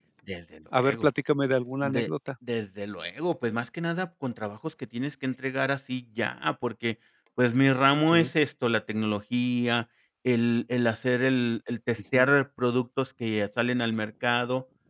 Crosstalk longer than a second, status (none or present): none